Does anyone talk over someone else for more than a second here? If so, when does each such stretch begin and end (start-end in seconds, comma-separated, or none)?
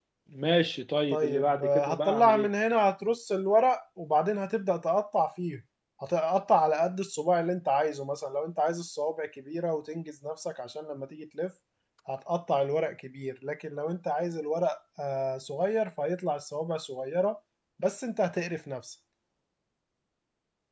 1.1-2.5